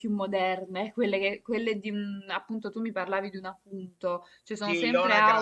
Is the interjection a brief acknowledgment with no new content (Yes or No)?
No